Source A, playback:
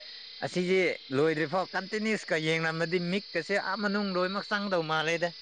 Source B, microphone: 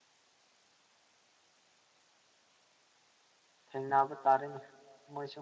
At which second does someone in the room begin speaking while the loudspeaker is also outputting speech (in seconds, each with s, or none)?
3.7 s